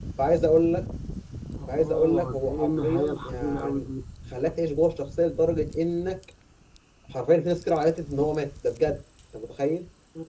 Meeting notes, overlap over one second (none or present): present